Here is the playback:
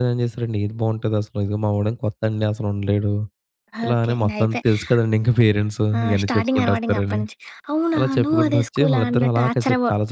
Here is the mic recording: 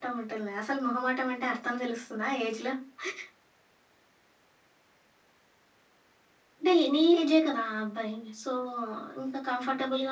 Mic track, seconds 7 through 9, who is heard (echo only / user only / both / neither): user only